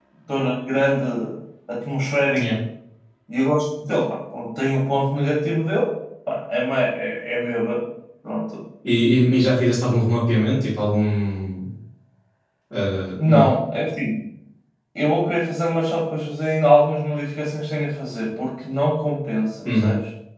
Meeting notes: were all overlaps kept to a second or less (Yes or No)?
Yes